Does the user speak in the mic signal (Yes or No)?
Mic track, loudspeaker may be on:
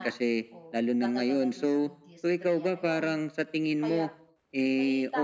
Yes